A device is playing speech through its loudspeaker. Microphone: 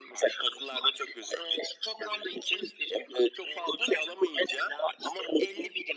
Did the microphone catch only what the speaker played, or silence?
Yes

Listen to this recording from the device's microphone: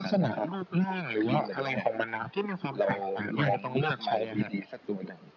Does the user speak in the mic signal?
No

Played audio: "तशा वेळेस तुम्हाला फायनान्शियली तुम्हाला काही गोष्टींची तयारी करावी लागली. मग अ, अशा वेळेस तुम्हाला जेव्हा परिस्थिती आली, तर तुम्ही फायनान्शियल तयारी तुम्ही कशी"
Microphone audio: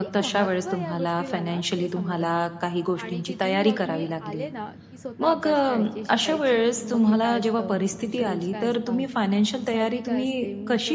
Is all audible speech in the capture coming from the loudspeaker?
No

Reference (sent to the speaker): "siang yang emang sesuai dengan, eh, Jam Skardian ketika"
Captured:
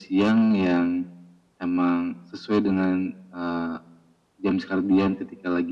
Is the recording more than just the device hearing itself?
No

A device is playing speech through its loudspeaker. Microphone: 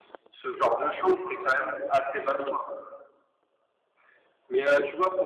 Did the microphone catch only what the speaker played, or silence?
Yes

